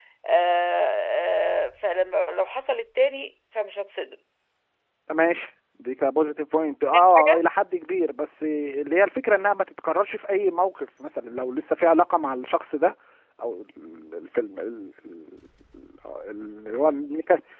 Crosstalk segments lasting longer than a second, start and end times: none

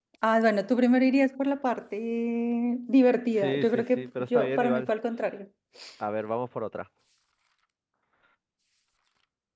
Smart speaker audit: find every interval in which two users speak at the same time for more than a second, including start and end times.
3.4-4.9

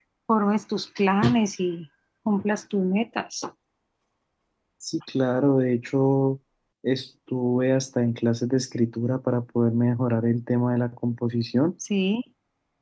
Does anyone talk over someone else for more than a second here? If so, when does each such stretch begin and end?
none

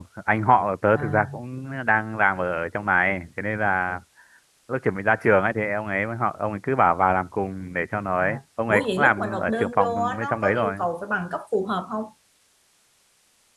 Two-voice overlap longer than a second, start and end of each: 8.7-10.8

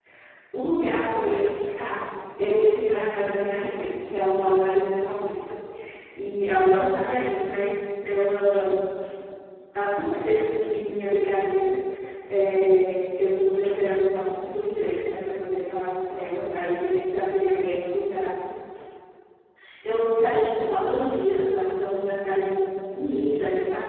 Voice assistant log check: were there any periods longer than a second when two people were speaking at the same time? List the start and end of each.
none

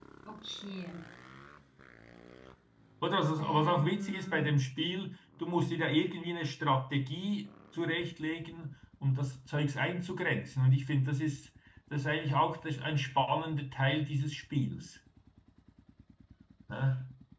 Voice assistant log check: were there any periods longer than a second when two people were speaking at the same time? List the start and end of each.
3.4-4.6

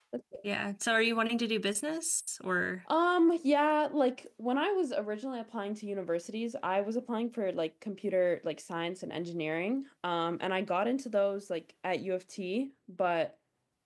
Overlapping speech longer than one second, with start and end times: none

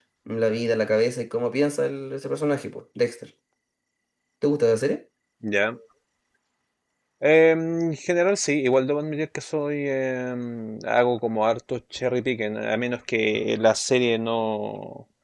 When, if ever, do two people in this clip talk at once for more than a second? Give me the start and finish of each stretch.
none

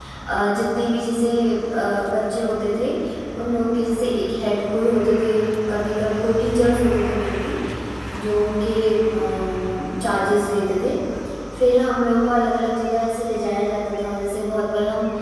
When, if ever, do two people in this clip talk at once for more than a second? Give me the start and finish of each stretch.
none

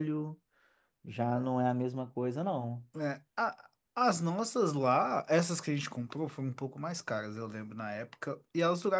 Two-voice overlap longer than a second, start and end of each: none

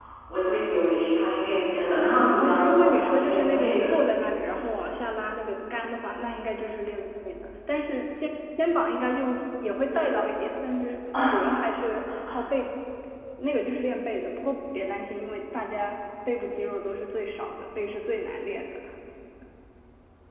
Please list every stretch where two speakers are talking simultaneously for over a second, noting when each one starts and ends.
2.4-3.9

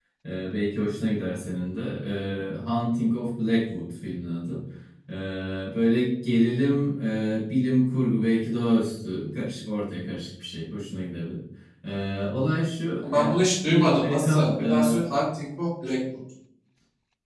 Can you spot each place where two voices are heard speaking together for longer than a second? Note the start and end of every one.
13.0-15.0

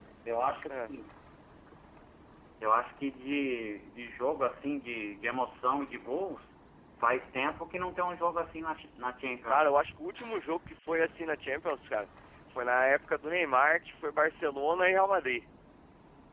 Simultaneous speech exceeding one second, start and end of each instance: none

